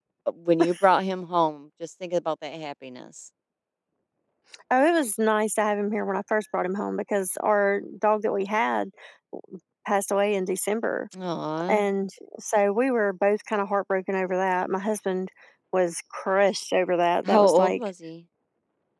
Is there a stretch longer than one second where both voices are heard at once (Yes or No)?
No